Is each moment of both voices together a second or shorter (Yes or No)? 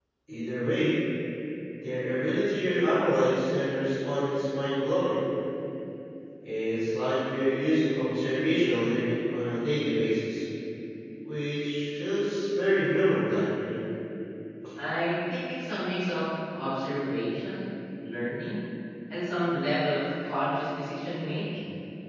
Yes